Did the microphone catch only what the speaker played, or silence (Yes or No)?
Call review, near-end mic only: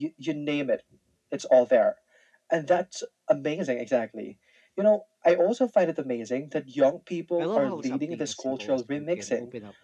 No